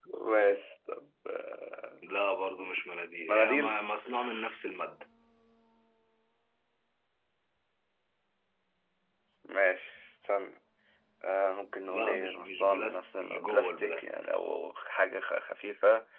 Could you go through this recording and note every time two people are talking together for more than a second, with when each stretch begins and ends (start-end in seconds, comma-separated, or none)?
11.9-14.2